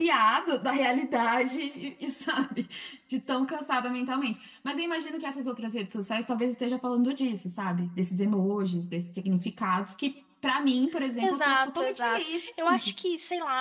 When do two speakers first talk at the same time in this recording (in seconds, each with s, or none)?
11.2 s